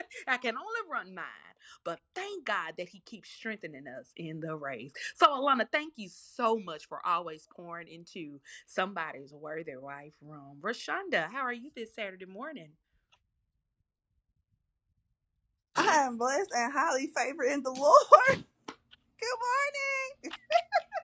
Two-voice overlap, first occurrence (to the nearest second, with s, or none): none